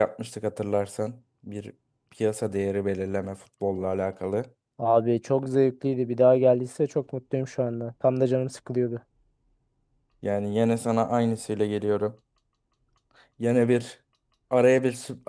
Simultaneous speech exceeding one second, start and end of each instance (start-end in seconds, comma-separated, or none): none